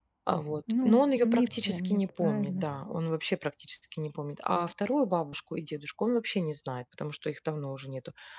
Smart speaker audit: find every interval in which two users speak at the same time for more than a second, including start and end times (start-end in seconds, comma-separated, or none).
0.8-2.8